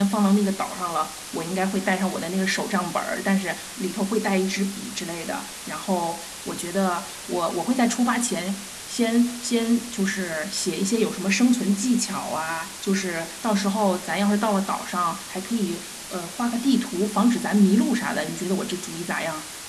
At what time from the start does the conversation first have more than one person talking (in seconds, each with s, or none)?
none